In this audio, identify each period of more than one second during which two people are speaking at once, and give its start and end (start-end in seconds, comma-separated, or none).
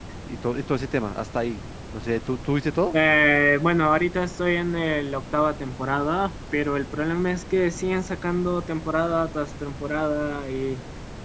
none